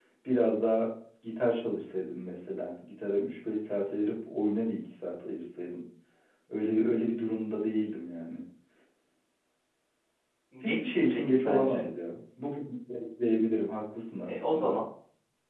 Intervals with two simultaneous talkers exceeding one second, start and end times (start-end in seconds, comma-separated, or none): 10.6-11.9